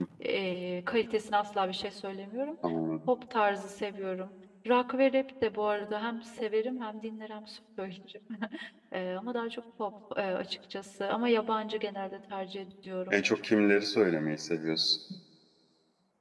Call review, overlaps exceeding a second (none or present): none